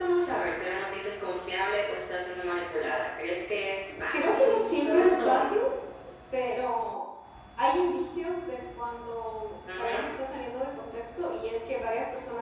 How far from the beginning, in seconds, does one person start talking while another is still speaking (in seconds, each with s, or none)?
4.1 s